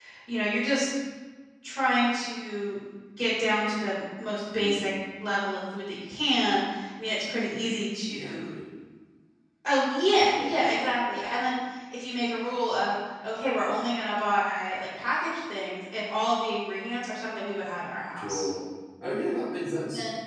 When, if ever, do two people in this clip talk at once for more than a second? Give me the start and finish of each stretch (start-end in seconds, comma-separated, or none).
none